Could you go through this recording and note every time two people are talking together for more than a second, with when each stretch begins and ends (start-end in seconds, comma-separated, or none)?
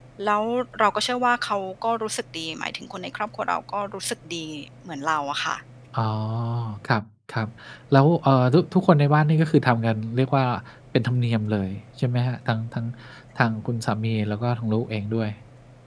none